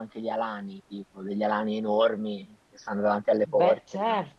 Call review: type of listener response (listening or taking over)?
taking over